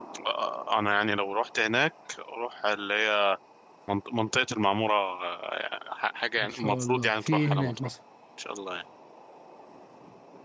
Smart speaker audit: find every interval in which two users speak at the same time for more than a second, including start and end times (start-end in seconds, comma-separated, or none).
6.4-7.9